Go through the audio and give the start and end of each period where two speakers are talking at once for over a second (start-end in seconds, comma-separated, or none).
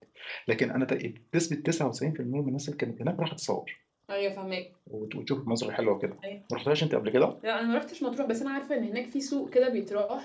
none